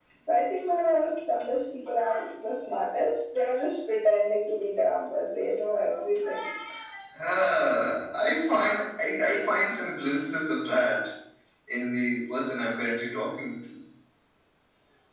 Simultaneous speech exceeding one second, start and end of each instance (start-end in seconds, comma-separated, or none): none